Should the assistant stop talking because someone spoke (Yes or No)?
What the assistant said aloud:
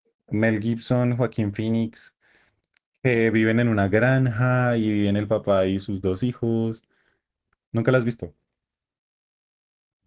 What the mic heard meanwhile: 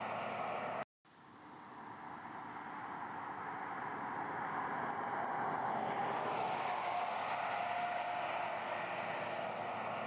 No